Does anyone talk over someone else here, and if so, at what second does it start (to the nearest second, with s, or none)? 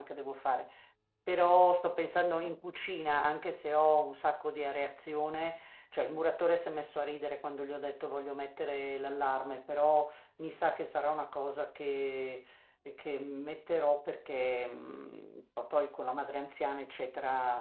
none